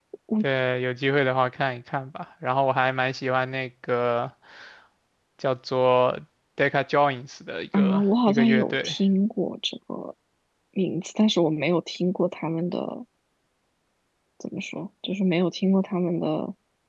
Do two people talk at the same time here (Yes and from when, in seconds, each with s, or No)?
Yes, from 7.7 s